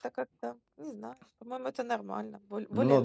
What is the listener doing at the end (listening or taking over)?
taking over